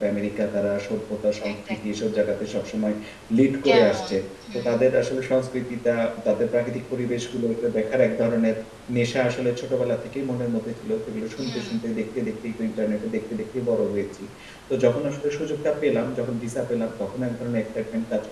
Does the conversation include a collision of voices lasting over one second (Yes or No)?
No